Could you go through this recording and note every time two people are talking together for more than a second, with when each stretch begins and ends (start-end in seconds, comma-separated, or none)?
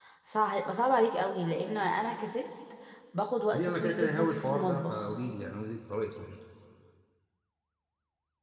3.5-5.1